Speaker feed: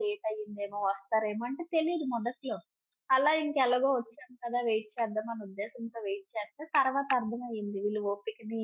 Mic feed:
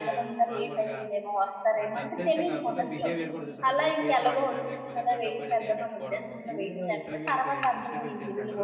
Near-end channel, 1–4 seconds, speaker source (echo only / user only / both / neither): both